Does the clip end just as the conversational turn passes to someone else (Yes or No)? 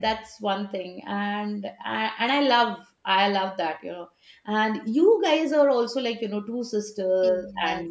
Yes